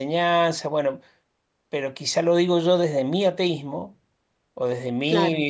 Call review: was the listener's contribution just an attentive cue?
Yes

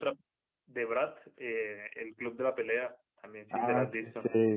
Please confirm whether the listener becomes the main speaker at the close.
Yes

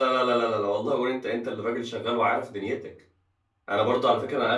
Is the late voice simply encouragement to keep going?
Yes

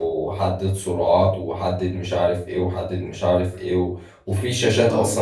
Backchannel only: Yes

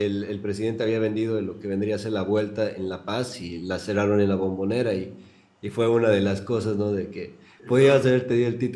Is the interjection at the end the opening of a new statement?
No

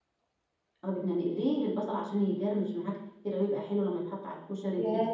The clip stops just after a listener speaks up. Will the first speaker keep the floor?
No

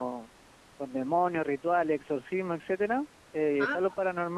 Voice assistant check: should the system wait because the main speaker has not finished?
Yes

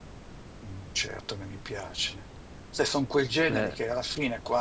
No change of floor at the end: Yes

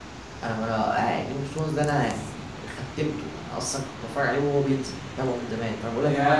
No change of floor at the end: No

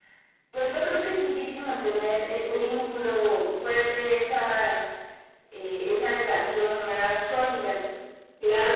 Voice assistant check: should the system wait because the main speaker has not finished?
No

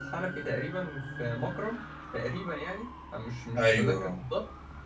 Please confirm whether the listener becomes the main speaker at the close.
No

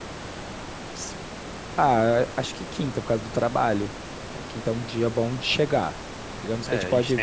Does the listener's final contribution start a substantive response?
Yes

